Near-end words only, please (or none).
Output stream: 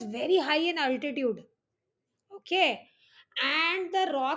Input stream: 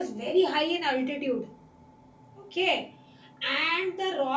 none